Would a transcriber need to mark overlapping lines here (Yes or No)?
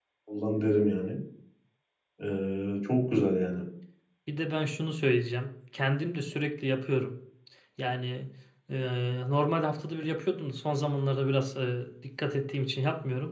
No